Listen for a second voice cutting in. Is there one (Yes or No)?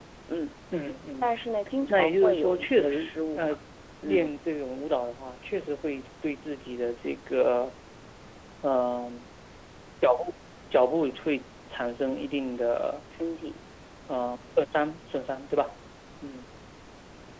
Yes